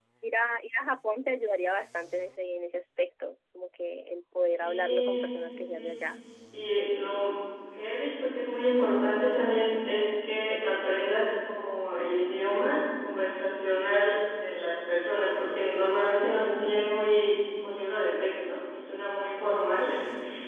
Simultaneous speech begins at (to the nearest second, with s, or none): 4 s